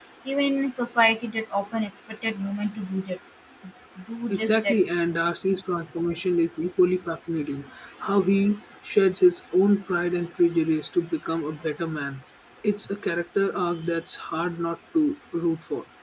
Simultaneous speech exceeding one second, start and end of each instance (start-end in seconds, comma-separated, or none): none